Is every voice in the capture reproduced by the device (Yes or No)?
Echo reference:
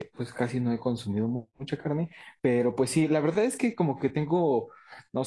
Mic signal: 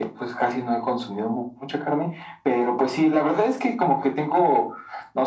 Yes